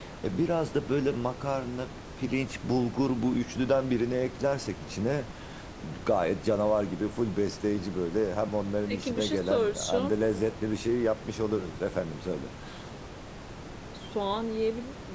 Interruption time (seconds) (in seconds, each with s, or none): 8.9 s